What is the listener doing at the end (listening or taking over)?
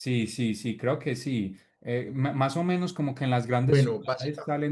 listening